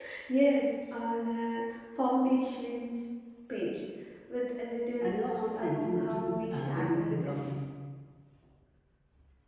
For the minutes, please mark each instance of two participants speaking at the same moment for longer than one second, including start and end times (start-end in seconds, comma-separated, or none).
5.0-7.5